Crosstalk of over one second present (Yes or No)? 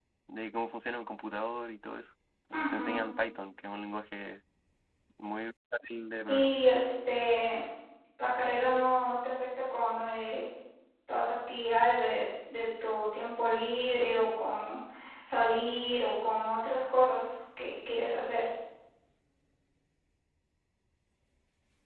No